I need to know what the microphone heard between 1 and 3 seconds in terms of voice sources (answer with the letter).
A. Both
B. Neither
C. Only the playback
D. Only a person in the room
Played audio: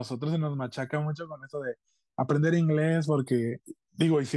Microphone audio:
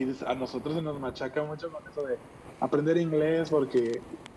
C